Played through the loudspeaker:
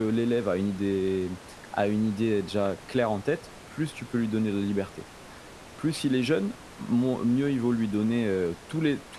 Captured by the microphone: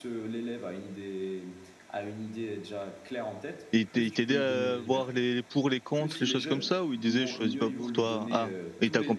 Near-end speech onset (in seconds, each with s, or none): 3.7 s